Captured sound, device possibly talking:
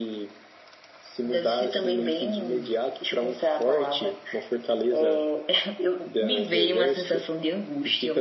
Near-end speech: none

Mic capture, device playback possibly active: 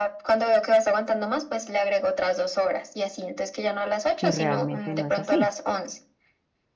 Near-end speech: present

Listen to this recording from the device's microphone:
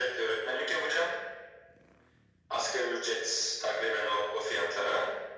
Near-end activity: none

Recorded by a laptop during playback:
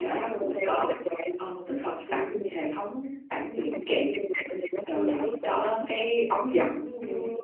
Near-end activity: present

